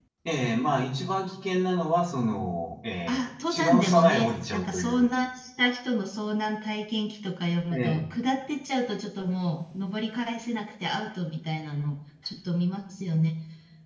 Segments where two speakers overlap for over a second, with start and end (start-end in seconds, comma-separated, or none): 3.1-5.1